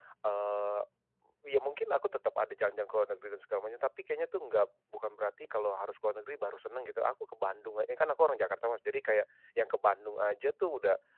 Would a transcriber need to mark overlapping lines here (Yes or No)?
No